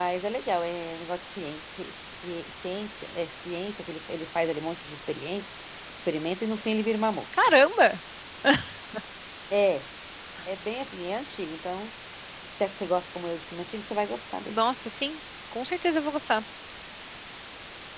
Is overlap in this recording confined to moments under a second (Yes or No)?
Yes